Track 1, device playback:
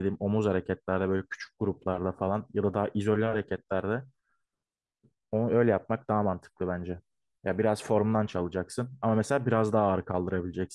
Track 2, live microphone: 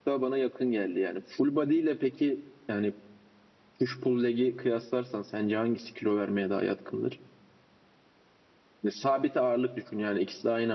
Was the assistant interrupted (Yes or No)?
Yes